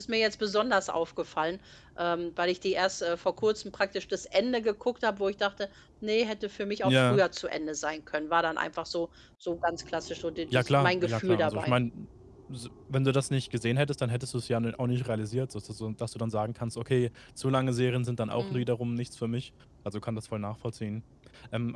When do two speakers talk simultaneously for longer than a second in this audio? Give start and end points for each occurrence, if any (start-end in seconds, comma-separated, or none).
10.5-11.7